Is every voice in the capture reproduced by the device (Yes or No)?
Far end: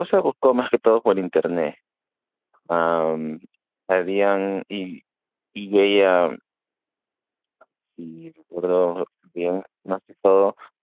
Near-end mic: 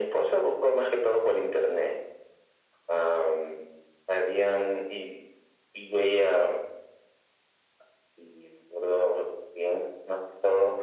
Yes